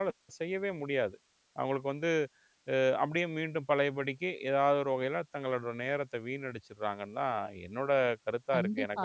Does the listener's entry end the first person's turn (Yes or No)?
Yes